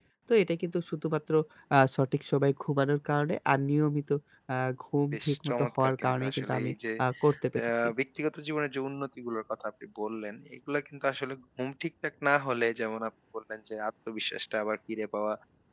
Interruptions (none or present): present